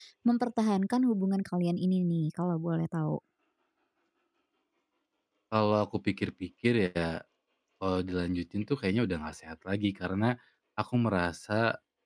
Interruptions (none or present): none